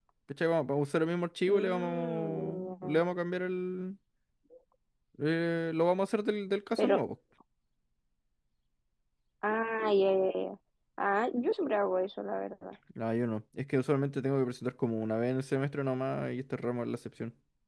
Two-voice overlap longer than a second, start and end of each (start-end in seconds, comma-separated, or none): 1.5-3.0